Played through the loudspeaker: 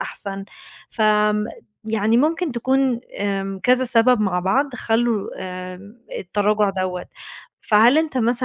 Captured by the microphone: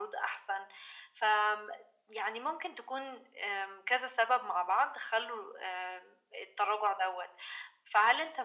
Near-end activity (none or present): none